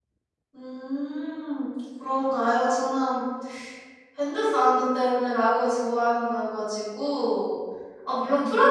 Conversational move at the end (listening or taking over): listening